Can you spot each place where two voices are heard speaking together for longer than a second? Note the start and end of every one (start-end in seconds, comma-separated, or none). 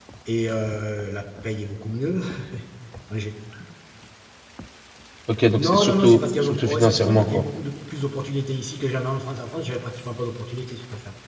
5.6-7.4